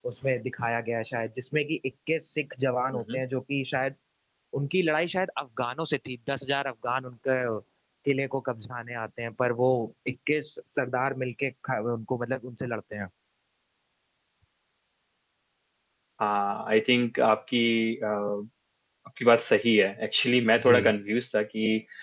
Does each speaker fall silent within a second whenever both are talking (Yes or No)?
Yes